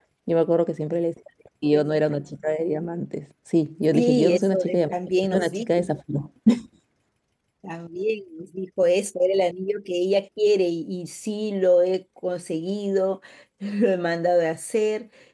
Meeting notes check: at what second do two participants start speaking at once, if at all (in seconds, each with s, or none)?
3.9 s